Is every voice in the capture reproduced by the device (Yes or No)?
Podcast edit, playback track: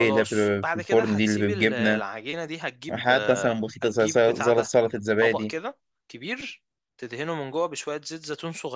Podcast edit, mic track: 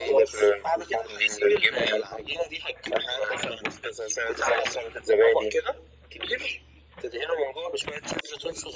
Yes